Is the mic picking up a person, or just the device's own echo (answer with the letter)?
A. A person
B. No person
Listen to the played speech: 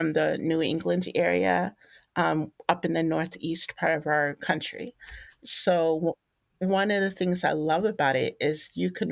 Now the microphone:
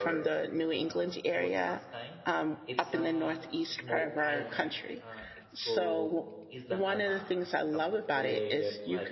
A